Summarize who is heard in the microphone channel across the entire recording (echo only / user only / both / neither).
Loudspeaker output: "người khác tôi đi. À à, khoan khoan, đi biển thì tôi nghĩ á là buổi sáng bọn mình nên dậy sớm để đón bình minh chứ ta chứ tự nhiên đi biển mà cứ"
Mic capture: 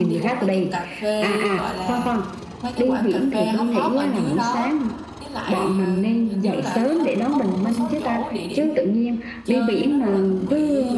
both